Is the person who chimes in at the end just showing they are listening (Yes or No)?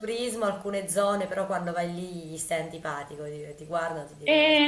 No